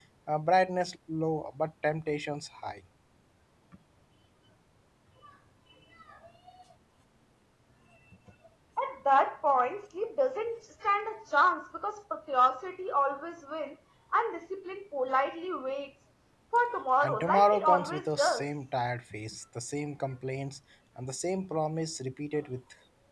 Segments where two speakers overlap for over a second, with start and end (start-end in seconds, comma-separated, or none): 17.0-18.4